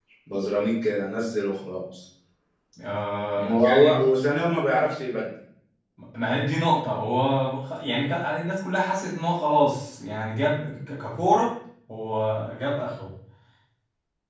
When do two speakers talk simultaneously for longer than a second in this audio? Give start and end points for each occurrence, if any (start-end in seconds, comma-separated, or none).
none